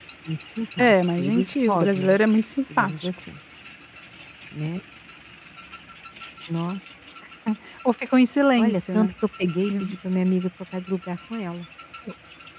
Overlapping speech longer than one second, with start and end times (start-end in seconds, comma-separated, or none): 0.8-2.2